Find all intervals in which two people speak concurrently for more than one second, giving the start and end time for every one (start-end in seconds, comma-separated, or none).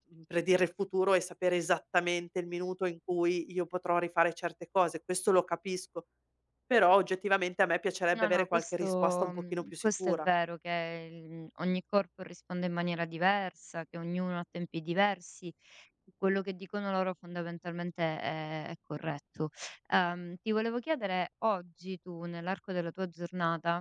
8.1-10.3